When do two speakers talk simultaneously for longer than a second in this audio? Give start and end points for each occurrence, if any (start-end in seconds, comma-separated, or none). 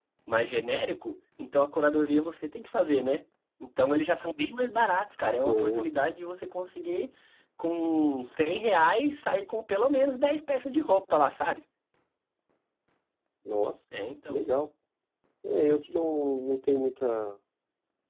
none